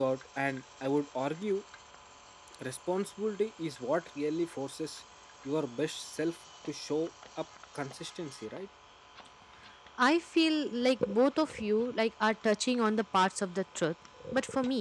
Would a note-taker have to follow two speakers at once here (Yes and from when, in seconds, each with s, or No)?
No